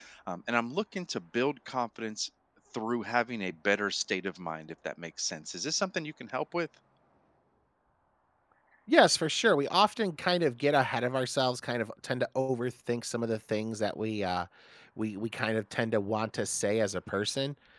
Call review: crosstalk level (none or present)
none